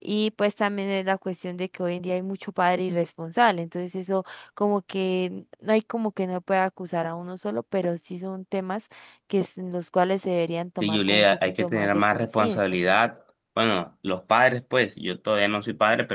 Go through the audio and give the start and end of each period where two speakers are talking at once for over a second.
10.8-12.8

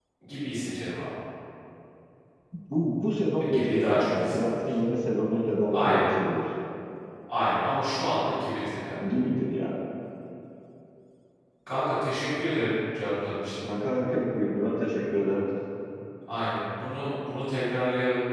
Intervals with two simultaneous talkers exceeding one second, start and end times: 3.4-4.7

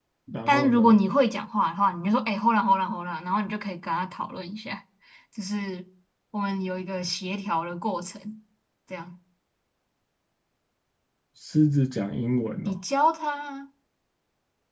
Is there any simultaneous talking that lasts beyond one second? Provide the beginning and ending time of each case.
none

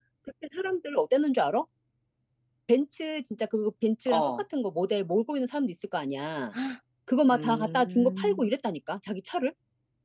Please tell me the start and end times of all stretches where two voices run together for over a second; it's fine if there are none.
7.3-8.5

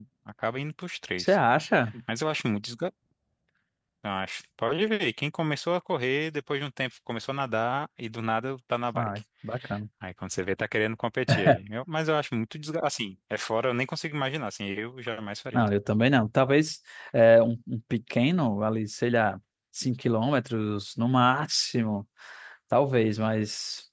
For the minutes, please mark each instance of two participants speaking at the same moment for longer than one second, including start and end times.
none

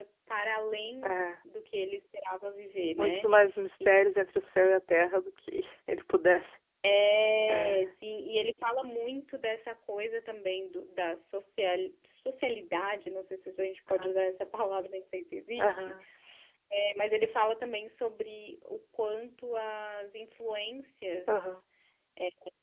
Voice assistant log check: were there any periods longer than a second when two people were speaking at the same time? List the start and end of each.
none

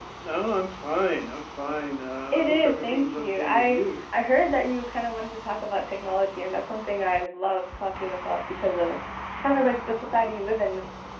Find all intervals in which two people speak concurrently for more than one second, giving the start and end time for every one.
2.3-3.8

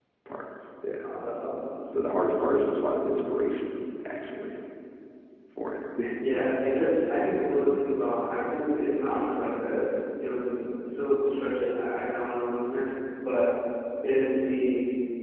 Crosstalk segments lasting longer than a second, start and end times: none

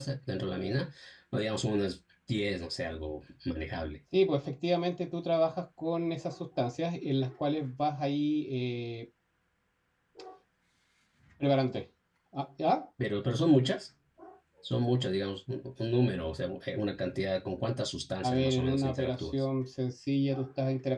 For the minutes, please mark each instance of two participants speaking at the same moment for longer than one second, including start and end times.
18.2-19.4

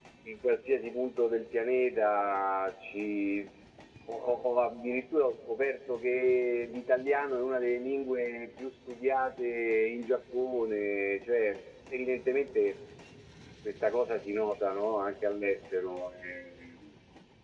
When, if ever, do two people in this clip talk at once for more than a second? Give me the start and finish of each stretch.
none

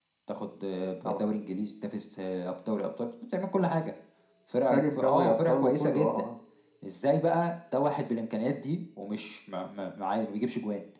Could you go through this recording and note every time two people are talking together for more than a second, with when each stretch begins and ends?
4.7-6.2

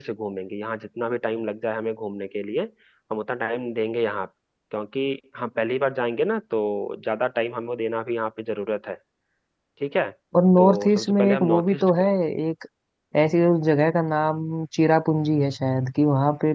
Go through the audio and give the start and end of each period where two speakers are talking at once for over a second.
10.6-11.9

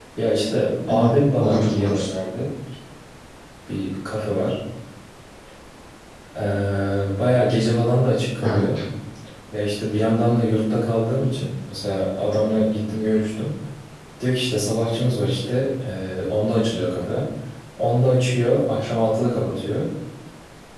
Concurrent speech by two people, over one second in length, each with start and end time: 0.9-2.1

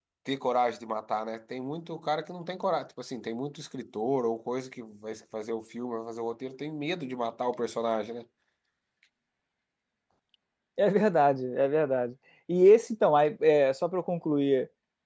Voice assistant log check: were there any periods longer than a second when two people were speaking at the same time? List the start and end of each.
none

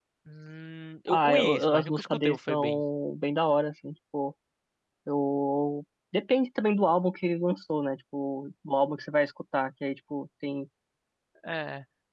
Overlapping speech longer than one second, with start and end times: 1.1-2.8

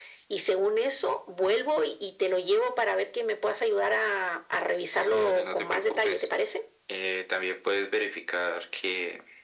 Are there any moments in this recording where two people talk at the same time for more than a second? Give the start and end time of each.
5.0-6.3

